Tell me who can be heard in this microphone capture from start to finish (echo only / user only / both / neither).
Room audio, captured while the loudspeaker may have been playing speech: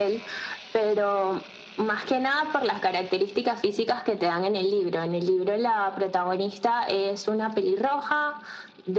echo only